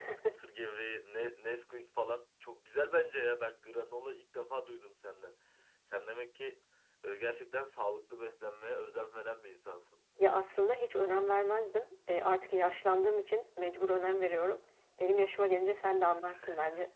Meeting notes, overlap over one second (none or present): none